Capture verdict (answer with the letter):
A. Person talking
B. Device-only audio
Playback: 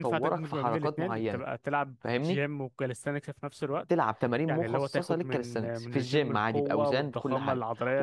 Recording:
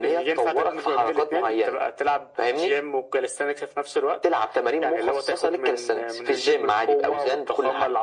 B